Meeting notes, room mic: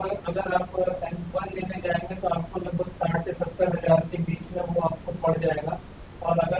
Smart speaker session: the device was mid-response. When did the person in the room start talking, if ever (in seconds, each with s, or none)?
none